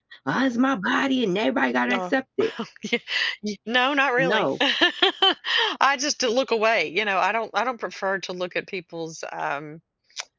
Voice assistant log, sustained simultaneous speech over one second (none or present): none